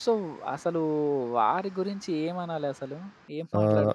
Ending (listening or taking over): taking over